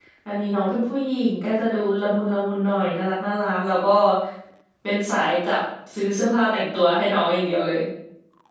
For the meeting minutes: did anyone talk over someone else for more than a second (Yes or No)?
No